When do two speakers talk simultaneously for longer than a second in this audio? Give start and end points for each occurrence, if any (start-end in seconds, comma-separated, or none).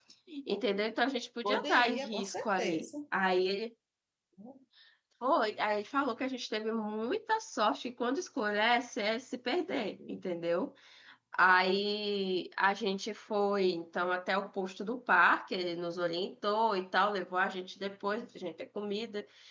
1.4-2.9